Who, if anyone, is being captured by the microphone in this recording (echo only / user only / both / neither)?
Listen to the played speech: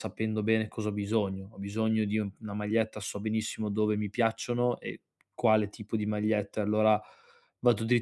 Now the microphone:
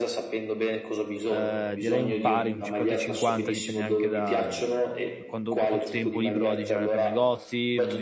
both